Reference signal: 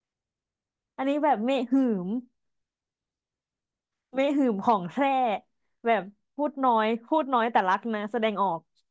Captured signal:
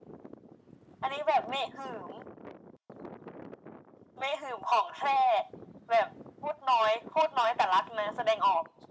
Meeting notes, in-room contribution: none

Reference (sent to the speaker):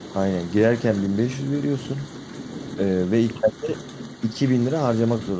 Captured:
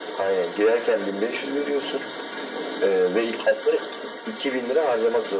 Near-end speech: none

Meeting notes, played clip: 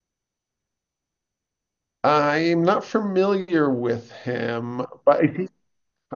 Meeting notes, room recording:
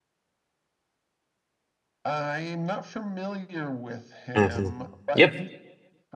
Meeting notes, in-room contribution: present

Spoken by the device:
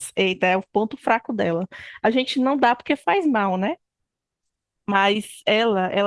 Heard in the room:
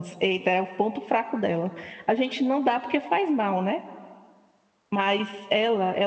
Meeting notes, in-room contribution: none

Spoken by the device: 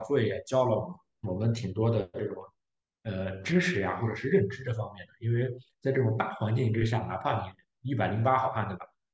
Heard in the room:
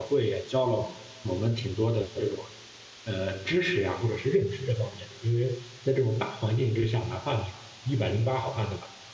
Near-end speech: none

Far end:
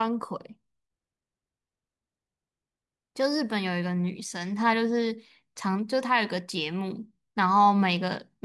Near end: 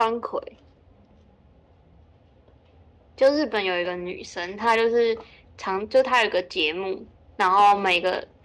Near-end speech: none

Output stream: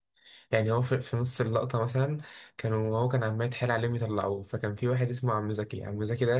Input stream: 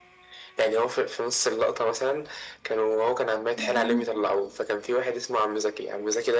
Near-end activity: present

